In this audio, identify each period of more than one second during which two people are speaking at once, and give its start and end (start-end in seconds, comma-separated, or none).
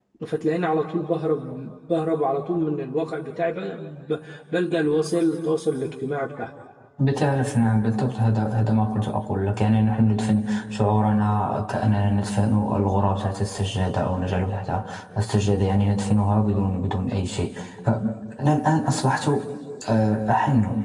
none